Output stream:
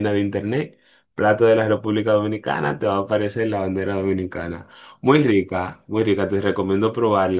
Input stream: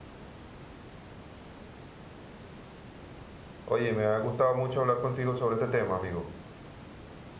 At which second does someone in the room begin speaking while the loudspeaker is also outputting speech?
3.6 s

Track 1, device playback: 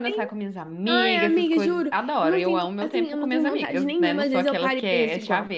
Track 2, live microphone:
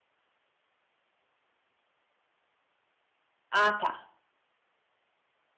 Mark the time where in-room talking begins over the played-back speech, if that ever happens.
3.6 s

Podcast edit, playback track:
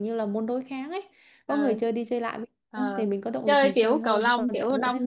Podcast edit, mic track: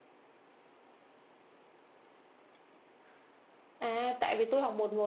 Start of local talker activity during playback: 3.8 s

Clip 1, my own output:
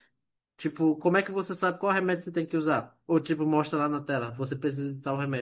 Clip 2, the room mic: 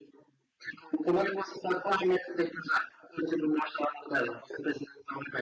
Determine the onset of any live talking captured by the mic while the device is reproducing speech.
none

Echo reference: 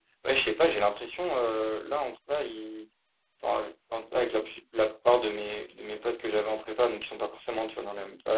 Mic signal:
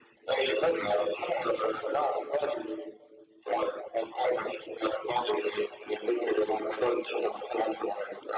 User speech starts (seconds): none

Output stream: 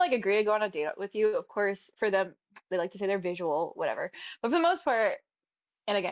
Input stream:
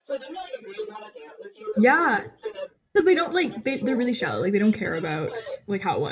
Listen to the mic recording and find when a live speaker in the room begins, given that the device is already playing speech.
1.8 s

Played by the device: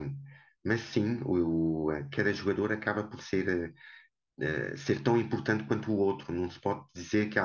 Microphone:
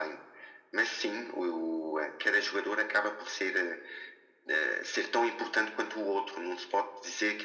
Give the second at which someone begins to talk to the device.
none

